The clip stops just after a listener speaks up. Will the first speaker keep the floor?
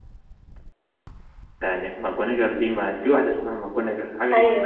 No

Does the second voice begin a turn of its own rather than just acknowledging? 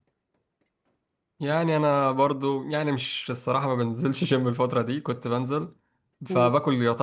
No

